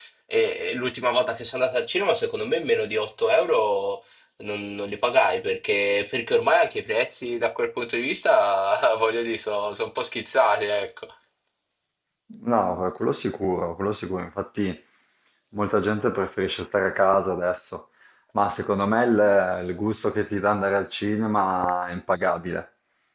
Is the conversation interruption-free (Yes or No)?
Yes